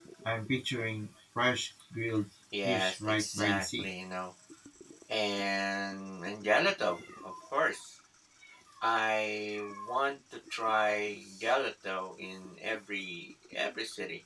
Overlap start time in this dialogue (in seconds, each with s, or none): 2.6 s